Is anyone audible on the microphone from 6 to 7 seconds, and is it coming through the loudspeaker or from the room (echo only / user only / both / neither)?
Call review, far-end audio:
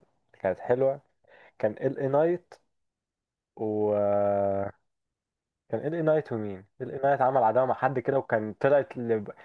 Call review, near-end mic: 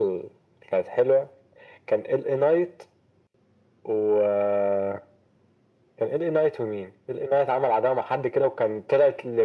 echo only